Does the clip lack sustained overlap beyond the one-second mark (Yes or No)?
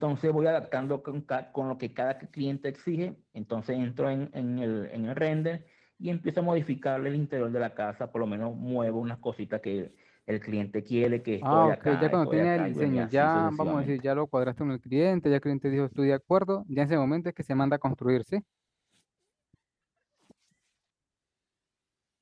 No